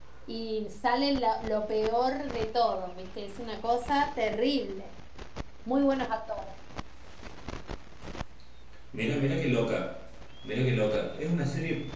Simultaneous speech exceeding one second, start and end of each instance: none

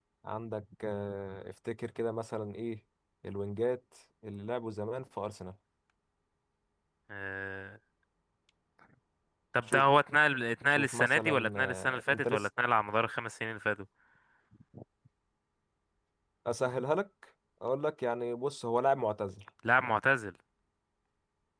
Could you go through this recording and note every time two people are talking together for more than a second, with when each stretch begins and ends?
10.7-12.5

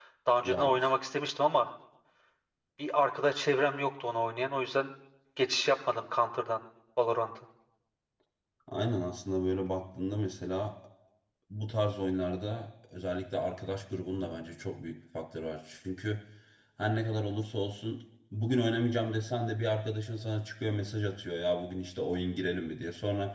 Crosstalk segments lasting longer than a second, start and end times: none

